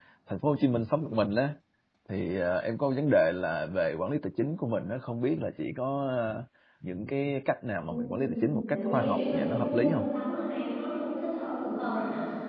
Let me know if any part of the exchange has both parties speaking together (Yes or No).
Yes